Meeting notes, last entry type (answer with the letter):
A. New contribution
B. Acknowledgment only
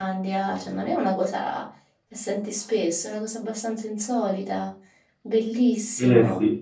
A